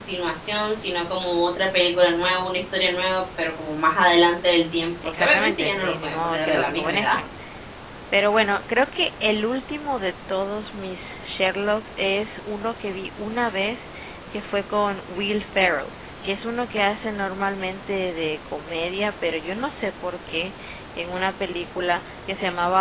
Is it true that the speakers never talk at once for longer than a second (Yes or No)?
No